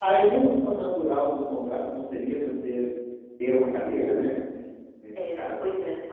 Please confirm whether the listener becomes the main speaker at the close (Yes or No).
Yes